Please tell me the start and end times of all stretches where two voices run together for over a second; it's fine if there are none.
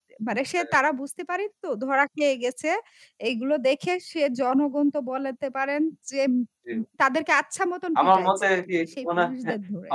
8.0-9.3

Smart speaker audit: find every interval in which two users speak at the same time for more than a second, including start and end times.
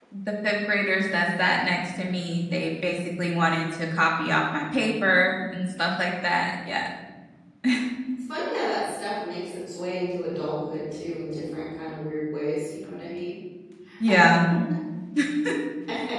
none

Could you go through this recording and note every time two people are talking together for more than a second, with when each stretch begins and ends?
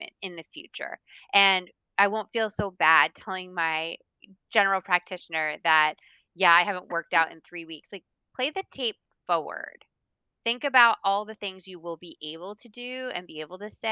none

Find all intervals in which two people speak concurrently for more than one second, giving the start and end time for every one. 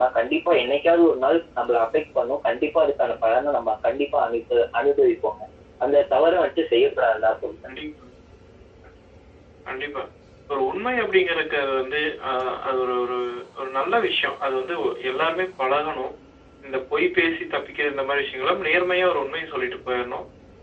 none

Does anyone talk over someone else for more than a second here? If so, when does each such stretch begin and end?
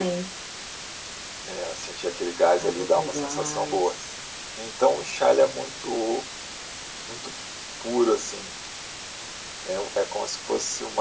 2.6-4.0

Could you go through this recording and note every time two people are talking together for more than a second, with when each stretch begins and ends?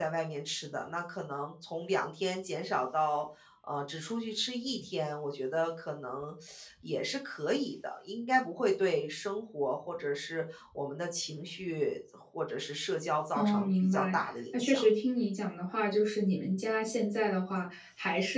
13.4-14.8

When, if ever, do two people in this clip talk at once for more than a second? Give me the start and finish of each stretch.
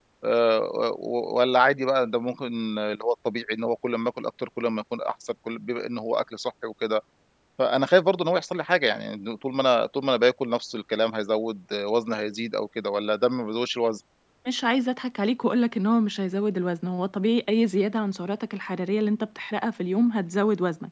none

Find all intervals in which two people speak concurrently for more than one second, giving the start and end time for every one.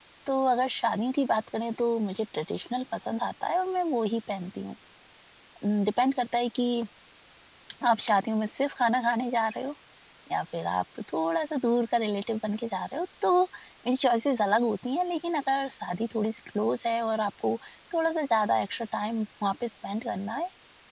none

